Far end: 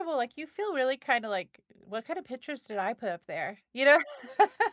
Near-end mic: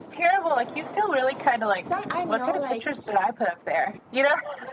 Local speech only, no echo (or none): some I know, like,